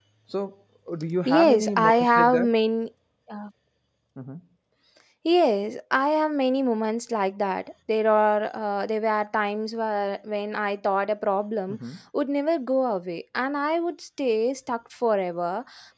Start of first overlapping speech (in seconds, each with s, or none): 1.2 s